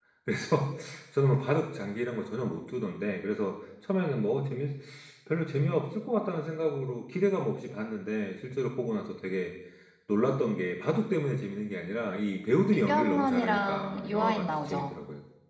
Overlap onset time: 13 s

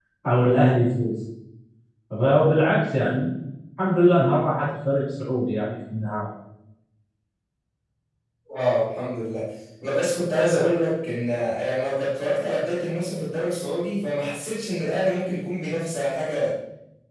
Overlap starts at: none

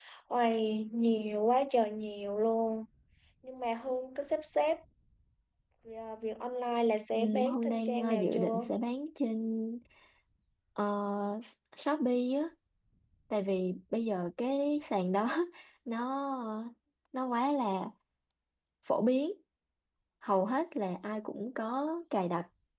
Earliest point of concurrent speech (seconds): 7 s

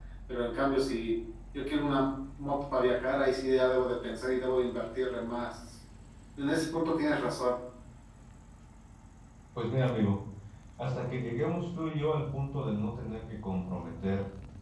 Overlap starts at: none

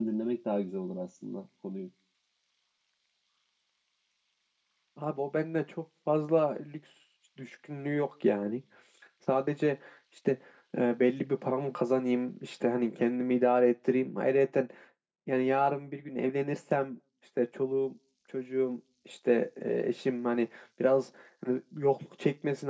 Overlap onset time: none

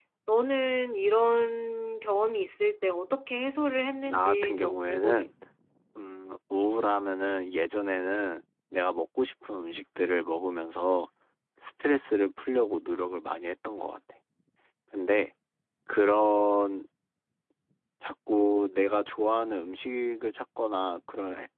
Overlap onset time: 4 s

